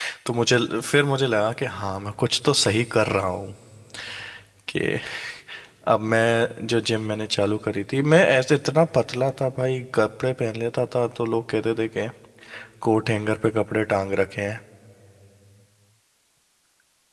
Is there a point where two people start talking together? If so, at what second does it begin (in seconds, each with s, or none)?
none